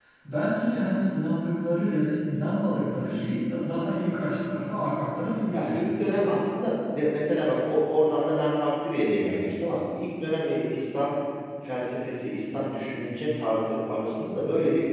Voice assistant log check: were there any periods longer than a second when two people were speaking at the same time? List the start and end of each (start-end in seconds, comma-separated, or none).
none